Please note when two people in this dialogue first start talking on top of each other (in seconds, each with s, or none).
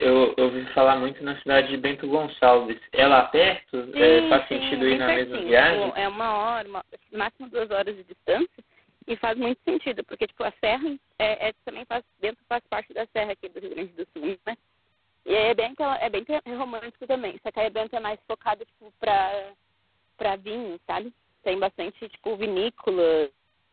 3.9 s